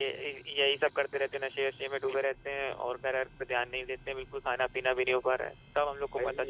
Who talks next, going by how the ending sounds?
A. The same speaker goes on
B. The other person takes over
B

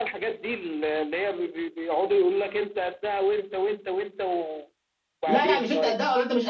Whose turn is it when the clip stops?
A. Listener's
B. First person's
A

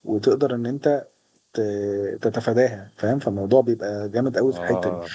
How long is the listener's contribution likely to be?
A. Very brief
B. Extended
A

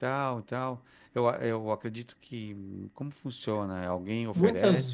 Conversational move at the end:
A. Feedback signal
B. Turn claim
B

